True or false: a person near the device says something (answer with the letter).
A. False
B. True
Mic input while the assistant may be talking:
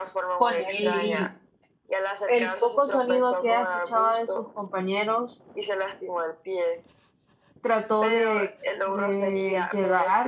B